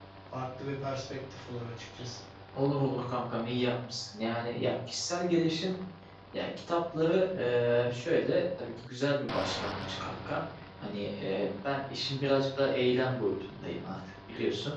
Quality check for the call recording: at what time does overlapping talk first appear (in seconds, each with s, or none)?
none